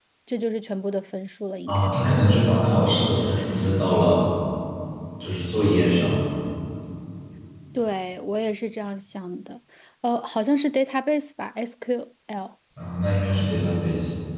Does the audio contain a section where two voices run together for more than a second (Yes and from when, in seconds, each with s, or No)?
No